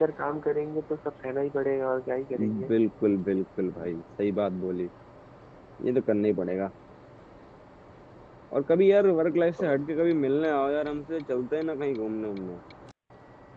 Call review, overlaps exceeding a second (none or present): none